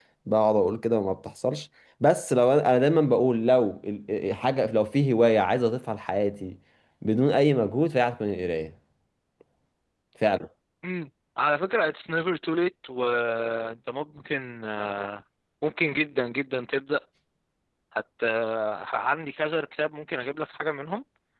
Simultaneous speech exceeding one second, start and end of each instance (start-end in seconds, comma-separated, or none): none